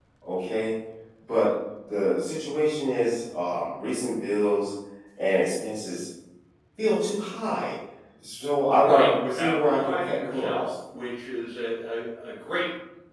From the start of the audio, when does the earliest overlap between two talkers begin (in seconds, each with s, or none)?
8.8 s